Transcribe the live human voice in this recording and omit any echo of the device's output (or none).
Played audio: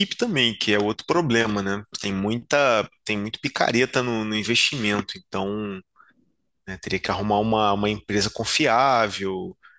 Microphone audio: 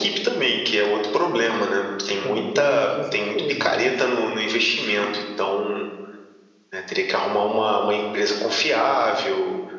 E também teria muitos assessores, nossa,